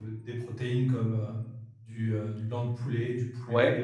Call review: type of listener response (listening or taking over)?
listening